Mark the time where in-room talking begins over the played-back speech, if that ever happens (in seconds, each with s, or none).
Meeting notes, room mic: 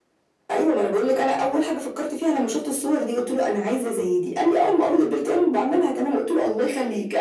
none